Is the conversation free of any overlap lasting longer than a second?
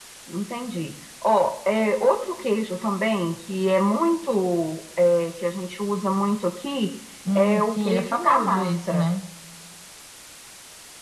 No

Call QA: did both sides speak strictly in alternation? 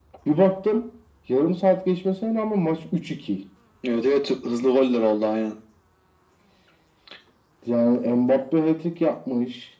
Yes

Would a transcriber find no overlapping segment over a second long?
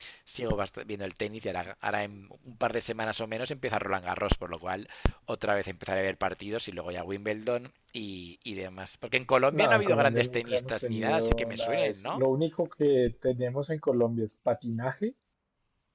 No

